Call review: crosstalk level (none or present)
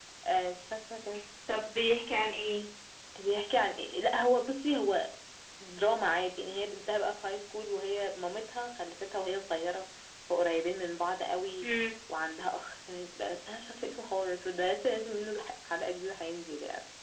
none